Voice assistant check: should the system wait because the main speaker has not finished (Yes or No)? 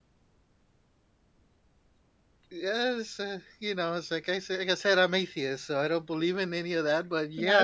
No